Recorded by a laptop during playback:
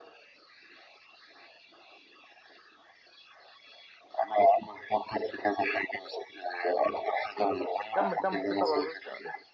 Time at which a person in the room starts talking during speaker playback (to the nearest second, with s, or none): 8 s